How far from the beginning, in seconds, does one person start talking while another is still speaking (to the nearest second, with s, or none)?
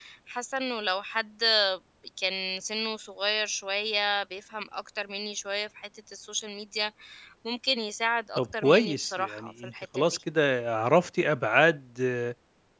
8 s